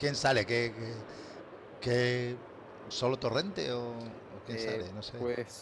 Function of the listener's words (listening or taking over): taking over